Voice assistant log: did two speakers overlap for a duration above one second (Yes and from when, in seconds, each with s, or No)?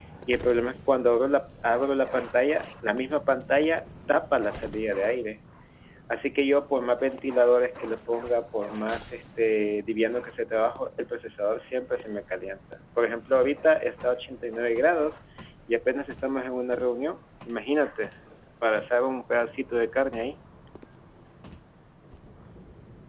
No